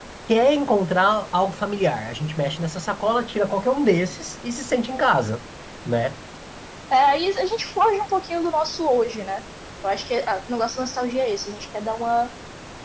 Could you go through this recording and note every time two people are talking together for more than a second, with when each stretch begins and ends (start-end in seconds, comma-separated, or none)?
none